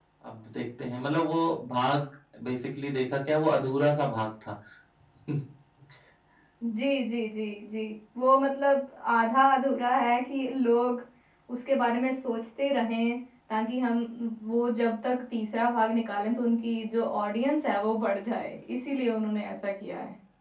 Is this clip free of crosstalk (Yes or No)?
Yes